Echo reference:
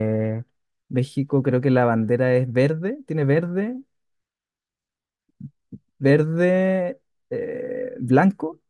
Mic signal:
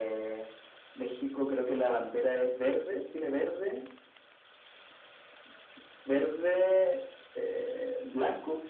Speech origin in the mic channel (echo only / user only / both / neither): echo only